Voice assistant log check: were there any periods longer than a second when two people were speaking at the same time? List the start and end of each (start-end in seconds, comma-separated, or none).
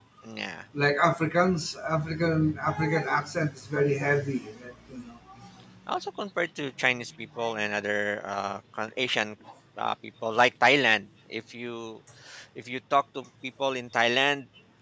none